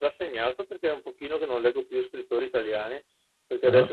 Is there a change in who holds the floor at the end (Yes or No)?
No